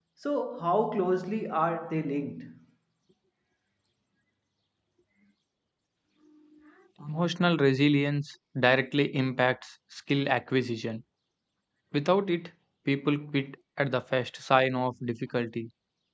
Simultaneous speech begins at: none

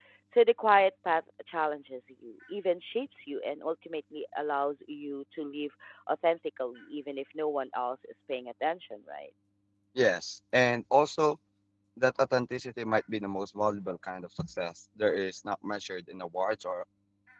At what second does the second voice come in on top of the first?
none

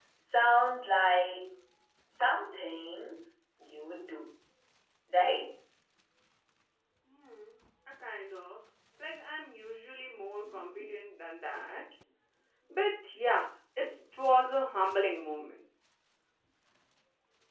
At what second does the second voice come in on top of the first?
none

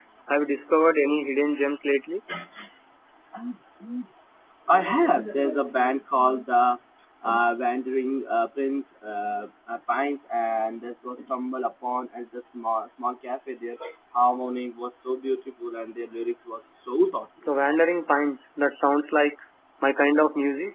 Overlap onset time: none

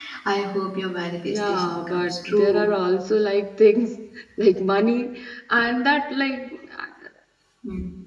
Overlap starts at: 1.2 s

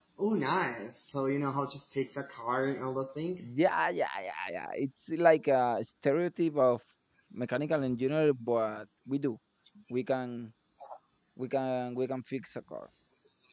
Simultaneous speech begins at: none

